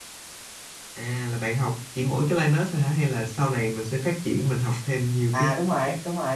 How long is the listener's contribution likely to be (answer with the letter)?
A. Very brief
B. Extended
B